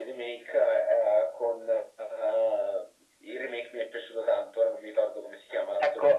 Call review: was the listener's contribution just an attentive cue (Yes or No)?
No